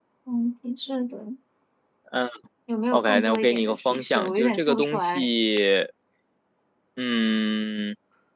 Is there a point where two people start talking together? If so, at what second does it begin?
2.9 s

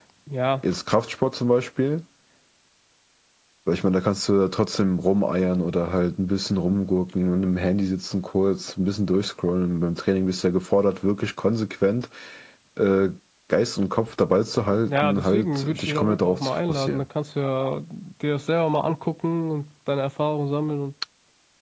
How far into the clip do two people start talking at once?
14.9 s

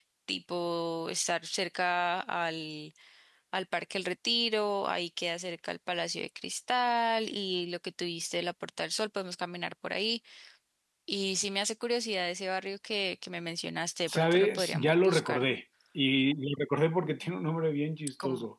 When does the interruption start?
14.1 s

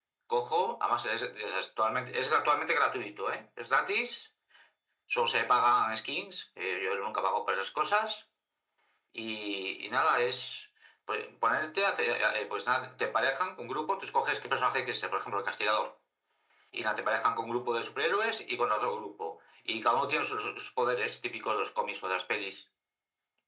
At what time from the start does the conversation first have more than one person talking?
none

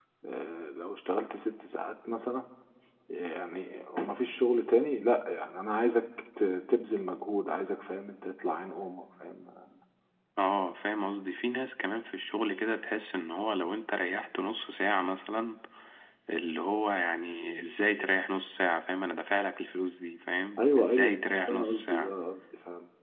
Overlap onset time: 20.6 s

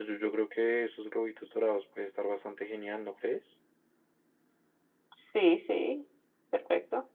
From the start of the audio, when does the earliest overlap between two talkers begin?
none

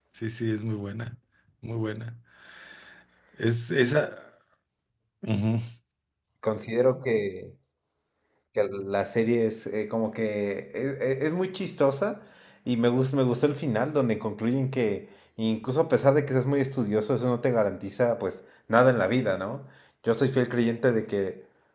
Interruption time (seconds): none

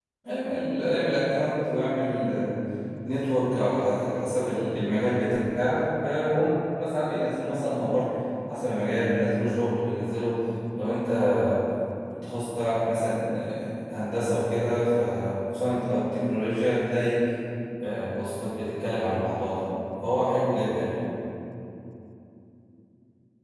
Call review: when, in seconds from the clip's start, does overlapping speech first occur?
none

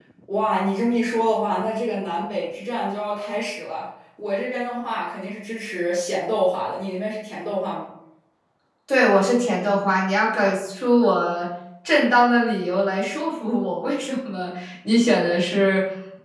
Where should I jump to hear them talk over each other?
none

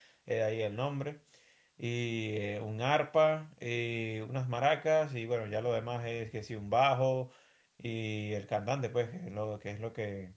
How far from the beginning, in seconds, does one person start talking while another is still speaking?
none

